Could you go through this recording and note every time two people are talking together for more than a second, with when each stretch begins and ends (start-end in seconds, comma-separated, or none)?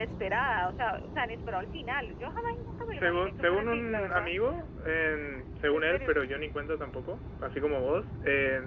3.0-4.3